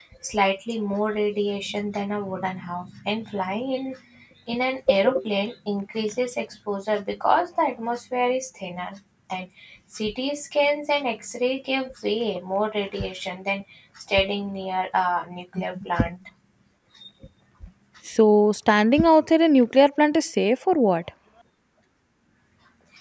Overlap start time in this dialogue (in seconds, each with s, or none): none